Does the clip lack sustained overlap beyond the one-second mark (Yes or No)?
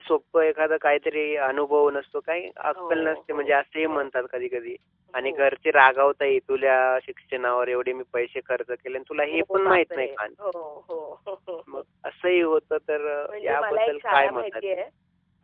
No